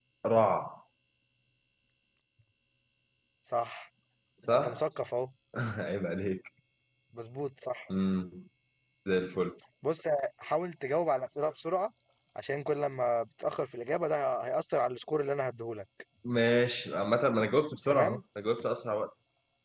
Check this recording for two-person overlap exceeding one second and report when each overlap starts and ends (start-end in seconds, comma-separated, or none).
none